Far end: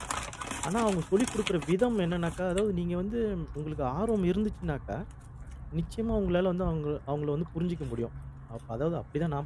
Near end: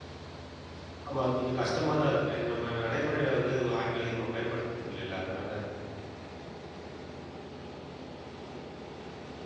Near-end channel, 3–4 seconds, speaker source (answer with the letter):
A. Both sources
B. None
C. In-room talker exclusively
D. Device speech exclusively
C